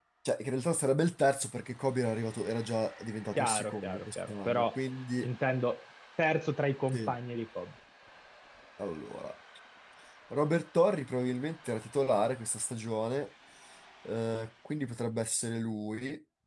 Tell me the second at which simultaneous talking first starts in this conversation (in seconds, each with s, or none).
3.4 s